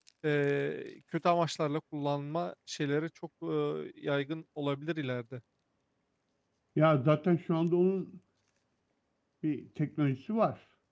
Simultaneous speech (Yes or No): No